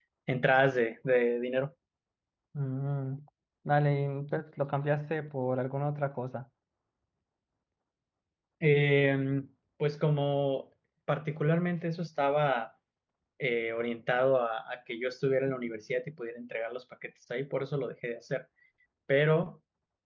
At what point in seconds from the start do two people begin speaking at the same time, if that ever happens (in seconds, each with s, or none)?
none